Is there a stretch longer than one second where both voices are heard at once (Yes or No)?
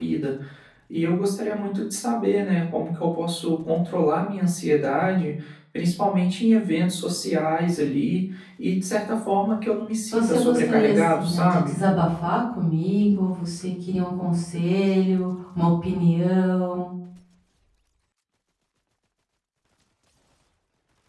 Yes